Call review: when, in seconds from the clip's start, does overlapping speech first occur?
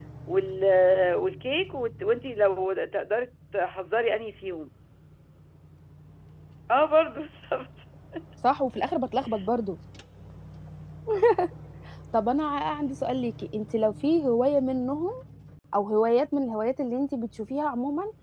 none

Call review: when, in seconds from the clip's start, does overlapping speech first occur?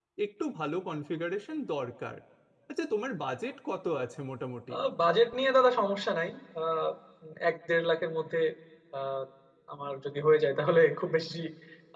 none

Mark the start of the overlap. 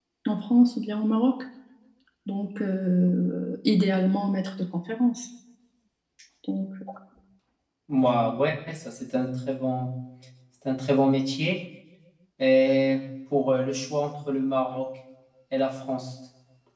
none

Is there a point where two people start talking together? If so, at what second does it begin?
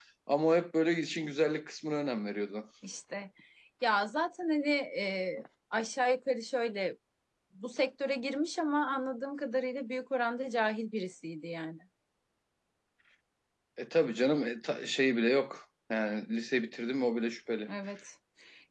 none

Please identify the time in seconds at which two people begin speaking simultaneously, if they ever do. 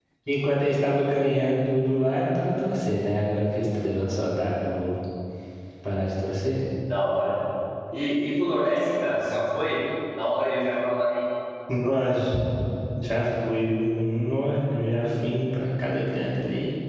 none

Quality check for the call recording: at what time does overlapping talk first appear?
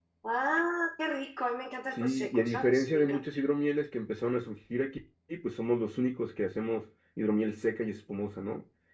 2 s

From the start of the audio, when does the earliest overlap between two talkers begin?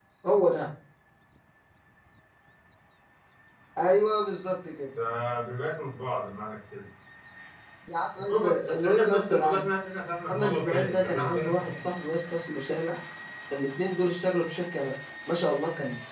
8 s

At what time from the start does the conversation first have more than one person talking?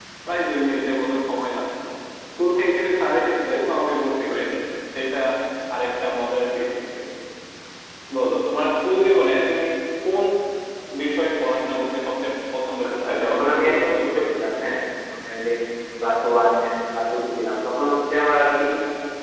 13 s

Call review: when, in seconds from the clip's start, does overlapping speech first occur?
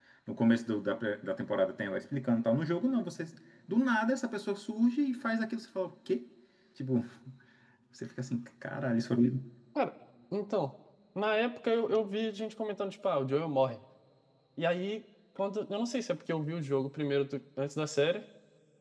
none

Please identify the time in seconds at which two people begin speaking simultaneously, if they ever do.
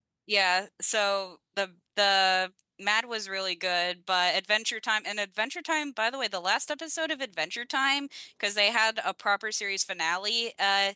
none

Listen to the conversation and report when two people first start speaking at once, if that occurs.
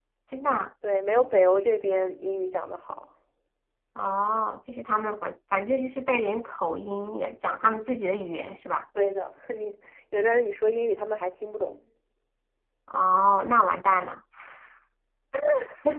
none

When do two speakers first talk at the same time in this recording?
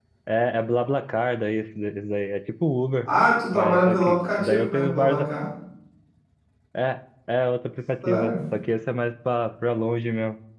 4 s

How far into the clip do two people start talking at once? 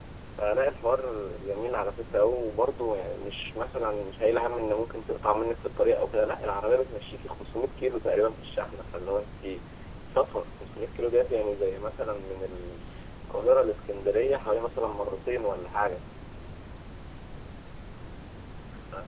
none

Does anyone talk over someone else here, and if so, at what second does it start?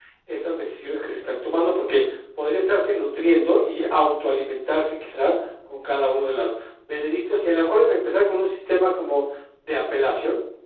none

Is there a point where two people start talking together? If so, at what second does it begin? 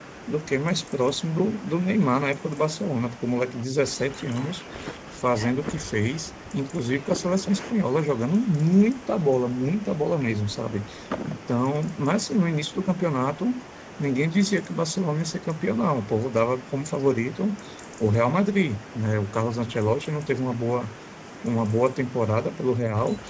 none

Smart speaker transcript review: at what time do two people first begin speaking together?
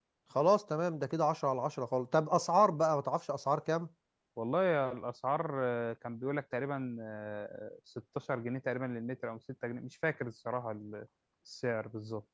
none

